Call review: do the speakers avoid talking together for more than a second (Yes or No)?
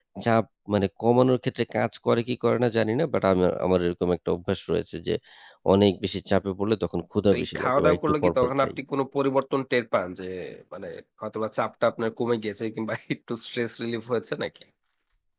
No